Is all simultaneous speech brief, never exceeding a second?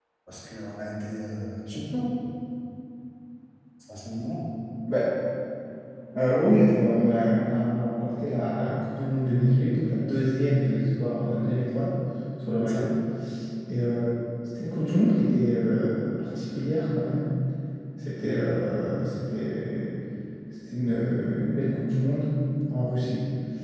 Yes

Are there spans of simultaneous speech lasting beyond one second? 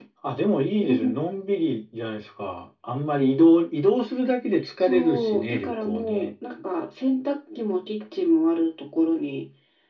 Yes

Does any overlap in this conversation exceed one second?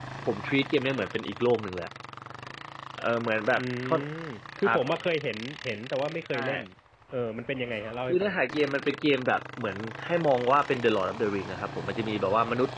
No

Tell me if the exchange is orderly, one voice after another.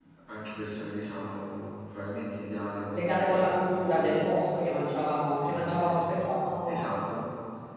No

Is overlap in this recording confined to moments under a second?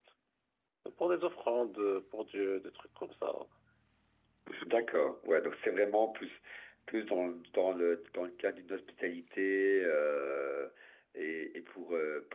Yes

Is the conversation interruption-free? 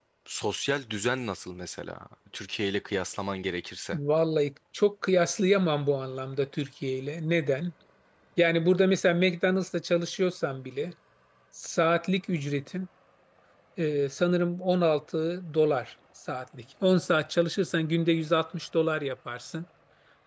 Yes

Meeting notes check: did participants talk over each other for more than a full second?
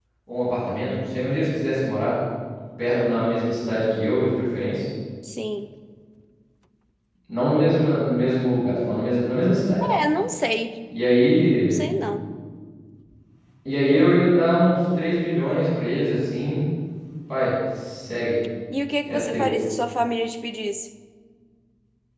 No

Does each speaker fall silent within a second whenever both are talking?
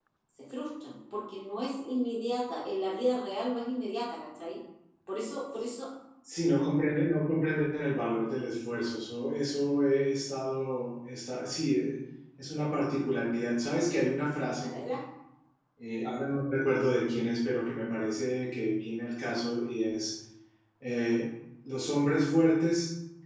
Yes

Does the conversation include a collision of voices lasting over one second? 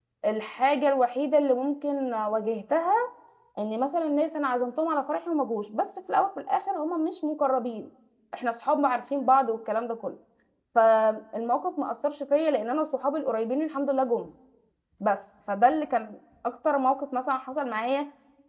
No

